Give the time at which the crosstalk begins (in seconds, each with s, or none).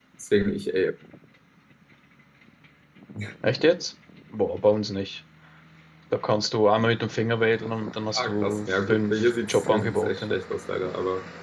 8.2 s